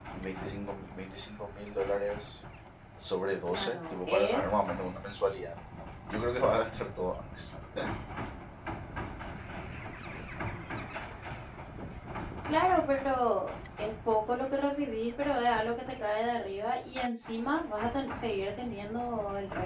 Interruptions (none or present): present